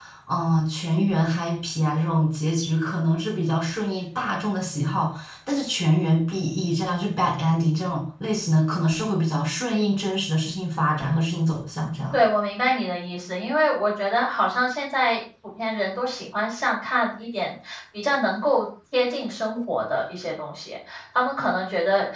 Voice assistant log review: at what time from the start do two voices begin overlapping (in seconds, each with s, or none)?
none